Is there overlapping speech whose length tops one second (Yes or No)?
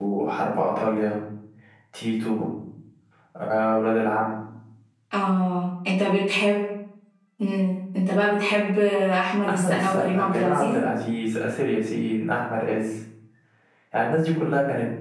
Yes